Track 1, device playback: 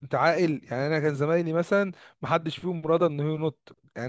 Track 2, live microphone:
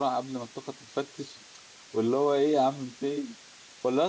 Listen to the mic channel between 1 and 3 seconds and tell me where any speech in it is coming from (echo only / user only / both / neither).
user only